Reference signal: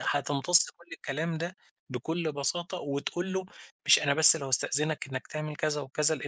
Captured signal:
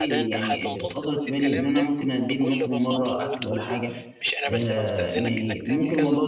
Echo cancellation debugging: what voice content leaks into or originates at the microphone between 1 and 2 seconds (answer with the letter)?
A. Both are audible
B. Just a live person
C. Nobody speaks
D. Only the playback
A